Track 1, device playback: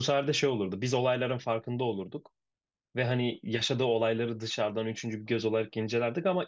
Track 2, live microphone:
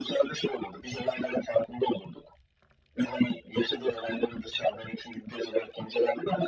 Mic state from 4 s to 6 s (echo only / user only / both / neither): echo only